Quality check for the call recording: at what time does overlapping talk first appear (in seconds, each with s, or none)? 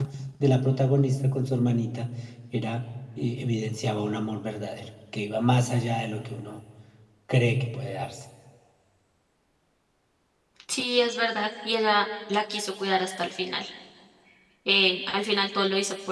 none